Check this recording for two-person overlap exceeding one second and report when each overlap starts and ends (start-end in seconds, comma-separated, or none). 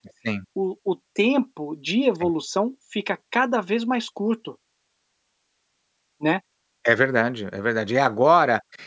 none